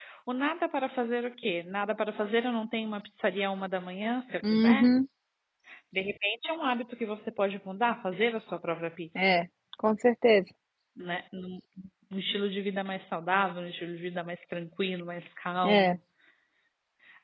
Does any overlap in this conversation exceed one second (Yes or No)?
No